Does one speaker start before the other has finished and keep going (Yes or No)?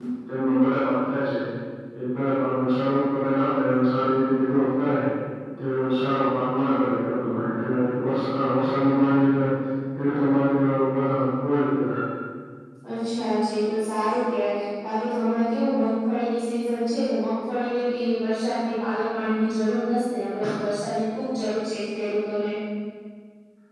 No